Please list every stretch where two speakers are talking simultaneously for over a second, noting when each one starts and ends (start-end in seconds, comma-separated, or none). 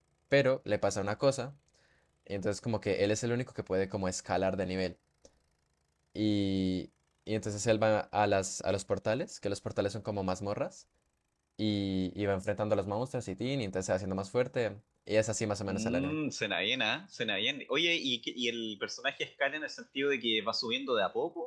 none